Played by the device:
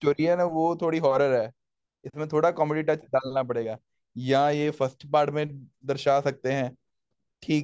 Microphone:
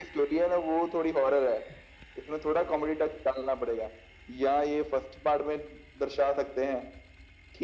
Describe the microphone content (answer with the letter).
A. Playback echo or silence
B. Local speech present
A